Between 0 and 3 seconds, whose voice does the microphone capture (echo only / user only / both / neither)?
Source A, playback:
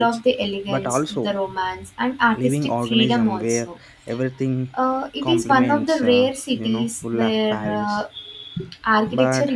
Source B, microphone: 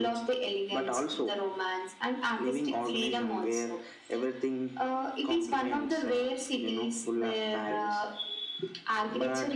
echo only